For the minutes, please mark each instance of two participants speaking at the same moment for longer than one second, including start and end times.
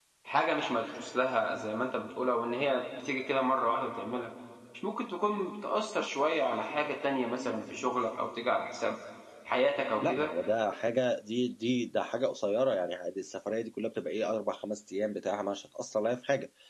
none

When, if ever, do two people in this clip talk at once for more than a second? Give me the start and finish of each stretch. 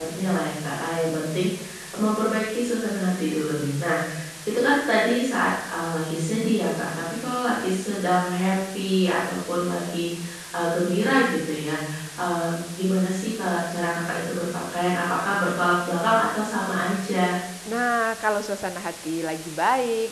none

